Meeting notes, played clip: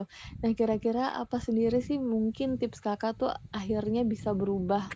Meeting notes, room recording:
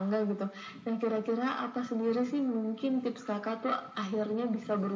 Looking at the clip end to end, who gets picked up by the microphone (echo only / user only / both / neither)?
echo only